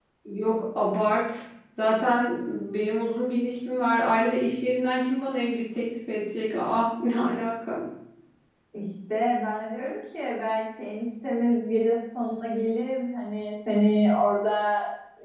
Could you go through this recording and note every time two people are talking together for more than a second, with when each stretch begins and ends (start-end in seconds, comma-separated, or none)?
none